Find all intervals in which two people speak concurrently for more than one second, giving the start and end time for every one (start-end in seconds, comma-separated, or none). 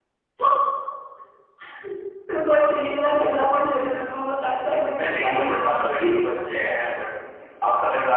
4.9-6.1